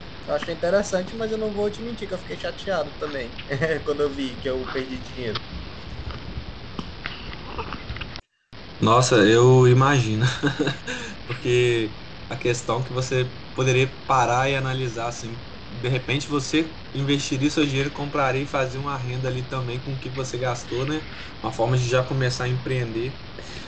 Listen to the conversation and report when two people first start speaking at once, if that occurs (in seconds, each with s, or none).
none